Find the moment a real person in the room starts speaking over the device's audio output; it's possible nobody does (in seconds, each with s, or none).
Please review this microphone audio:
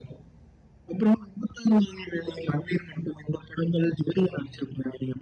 none